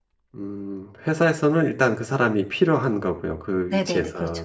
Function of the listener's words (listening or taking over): taking over